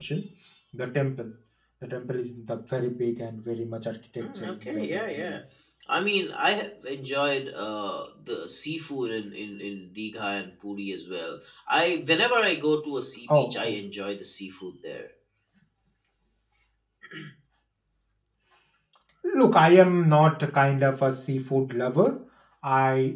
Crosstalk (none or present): present